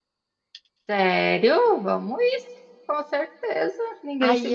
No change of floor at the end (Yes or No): No